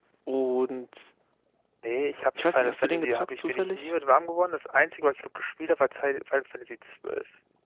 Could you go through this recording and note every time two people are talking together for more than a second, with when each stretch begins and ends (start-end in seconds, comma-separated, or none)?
2.4-3.9